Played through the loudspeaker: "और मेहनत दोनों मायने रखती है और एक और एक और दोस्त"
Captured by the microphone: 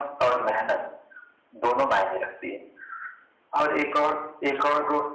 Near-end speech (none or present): none